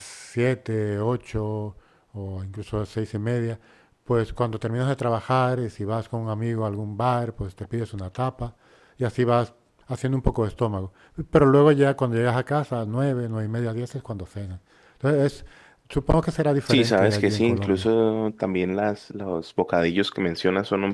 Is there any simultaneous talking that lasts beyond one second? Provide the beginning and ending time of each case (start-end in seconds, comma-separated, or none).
16.7-17.9